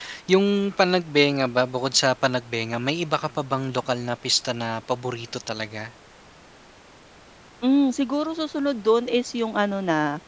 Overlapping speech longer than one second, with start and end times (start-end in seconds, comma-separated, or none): none